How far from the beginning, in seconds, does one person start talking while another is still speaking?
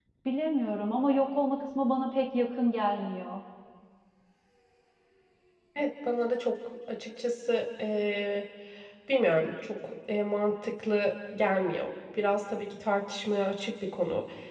none

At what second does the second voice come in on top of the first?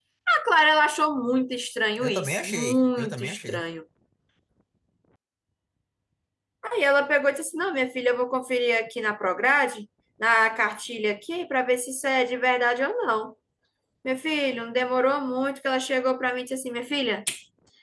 2.0 s

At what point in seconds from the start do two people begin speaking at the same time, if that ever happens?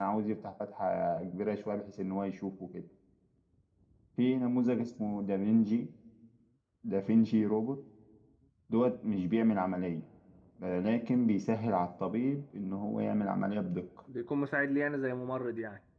none

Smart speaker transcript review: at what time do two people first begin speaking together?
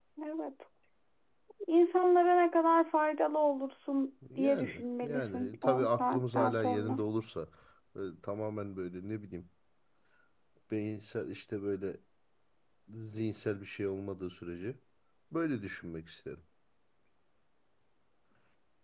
4.2 s

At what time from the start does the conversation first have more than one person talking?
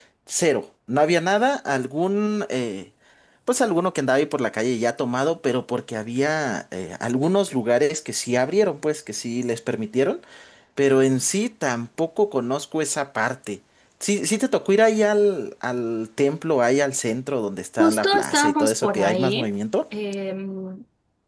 17.8 s

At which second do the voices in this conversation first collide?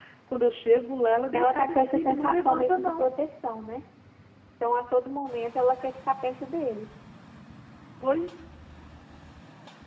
1.3 s

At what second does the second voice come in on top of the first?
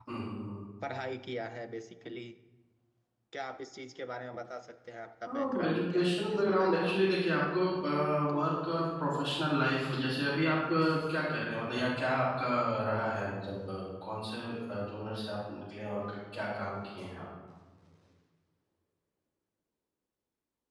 5.3 s

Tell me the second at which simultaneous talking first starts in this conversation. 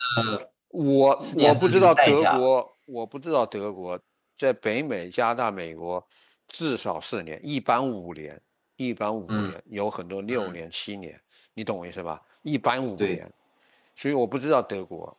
1.2 s

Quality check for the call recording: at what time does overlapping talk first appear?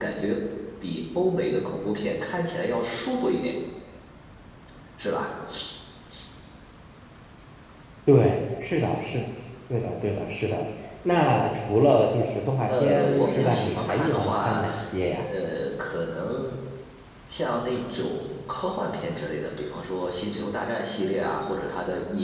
12.7 s

